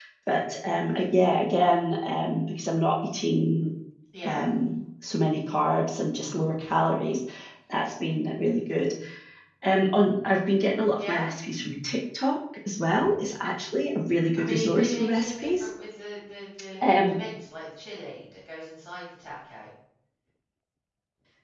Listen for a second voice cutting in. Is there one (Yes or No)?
Yes